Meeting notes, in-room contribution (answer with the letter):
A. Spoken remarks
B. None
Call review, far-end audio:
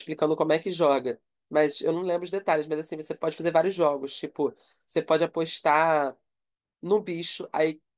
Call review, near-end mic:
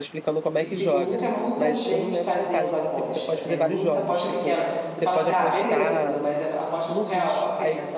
A